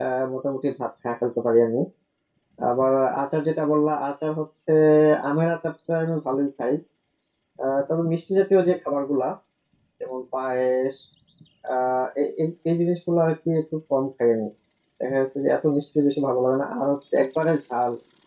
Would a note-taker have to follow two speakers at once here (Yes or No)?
No